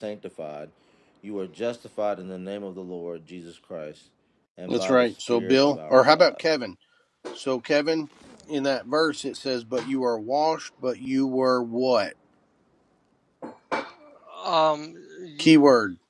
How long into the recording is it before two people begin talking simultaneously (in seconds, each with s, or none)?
4.7 s